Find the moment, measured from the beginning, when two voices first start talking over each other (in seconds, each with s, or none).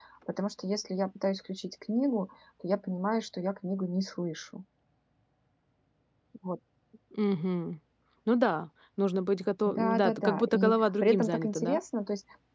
9.6 s